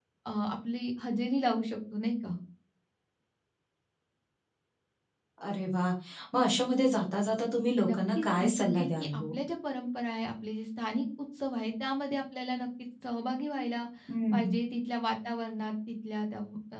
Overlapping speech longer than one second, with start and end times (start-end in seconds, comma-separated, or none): 7.9-9.3